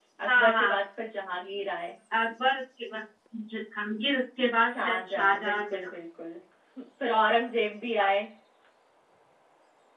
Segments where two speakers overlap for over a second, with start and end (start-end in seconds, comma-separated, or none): 4.6-5.9